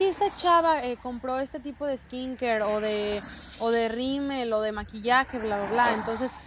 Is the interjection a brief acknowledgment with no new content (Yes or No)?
Yes